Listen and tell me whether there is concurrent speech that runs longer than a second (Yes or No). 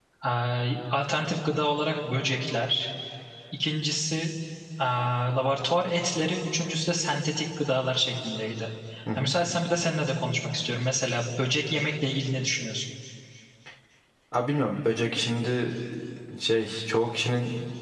No